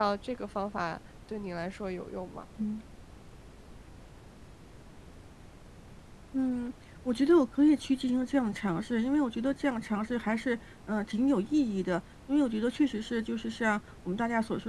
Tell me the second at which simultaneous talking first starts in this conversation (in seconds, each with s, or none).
none